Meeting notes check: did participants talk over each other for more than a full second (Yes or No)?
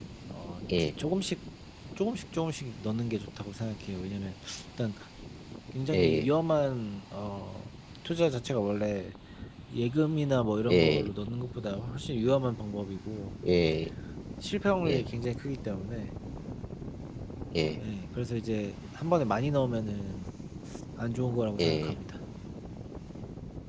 No